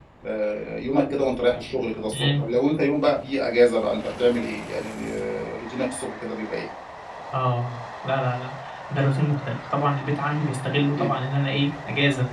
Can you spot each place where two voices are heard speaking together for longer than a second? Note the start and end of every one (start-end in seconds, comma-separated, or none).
none